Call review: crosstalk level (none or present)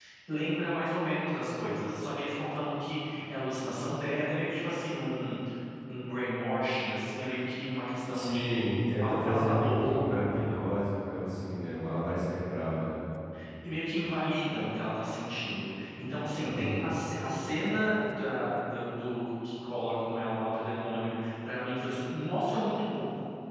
present